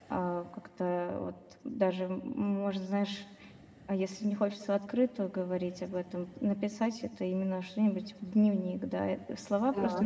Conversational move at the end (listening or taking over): listening